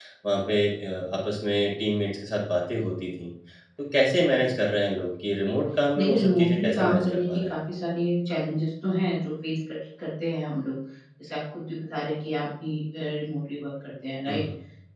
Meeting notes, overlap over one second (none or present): present